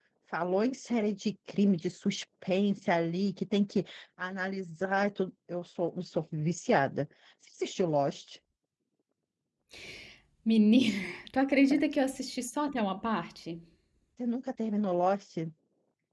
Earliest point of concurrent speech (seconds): none

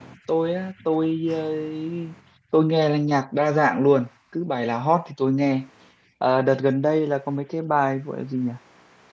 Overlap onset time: none

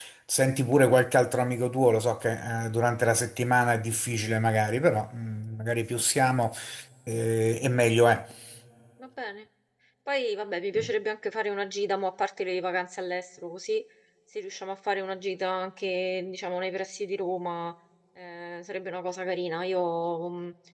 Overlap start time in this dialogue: none

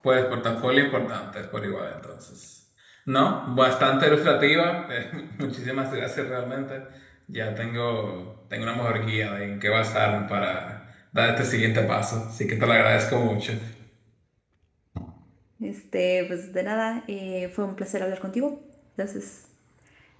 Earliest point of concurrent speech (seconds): none

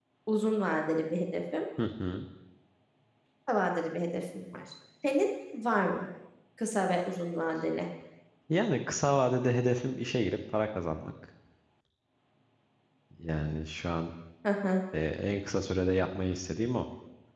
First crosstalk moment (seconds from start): none

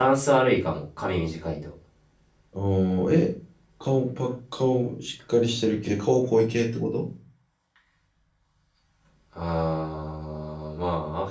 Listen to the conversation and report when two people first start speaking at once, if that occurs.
none

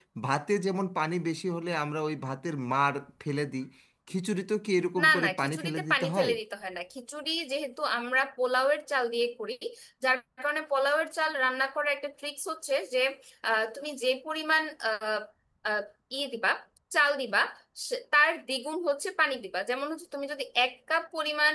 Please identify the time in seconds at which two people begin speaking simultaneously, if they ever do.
5.0 s

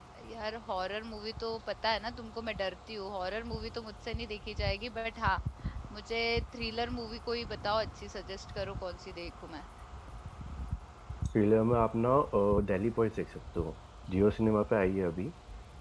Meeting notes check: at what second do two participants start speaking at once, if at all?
none

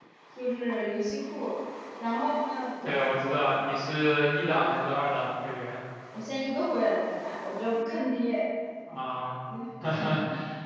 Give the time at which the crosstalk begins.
none

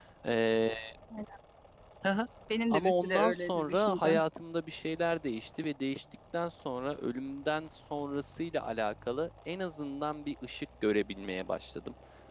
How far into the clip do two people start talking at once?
2.7 s

